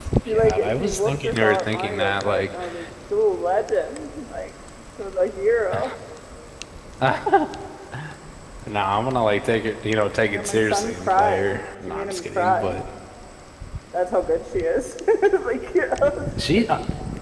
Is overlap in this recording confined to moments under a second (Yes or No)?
No